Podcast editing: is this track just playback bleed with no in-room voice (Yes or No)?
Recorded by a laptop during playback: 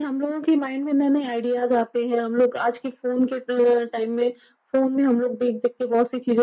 Yes